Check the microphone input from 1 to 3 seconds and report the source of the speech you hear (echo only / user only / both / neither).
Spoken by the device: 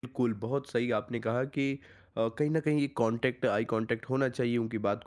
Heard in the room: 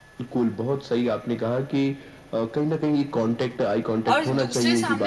echo only